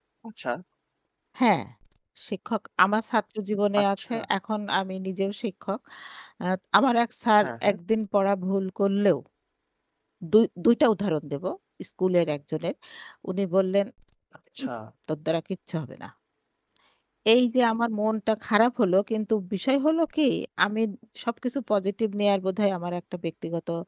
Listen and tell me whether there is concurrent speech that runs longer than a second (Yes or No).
No